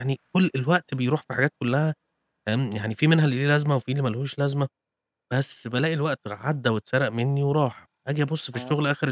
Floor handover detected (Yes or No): No